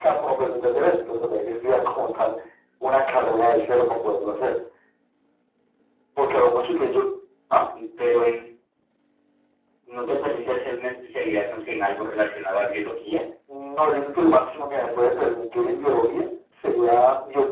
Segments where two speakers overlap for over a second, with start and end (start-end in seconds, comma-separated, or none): none